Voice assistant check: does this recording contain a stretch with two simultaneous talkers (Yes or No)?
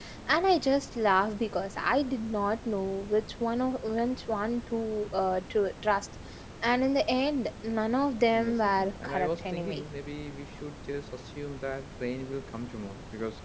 Yes